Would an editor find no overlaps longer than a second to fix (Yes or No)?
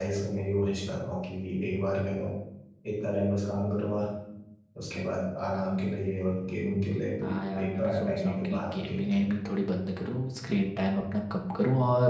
No